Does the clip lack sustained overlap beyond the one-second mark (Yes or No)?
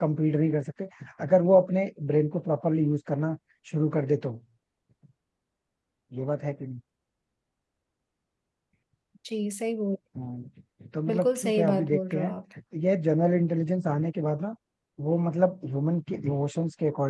No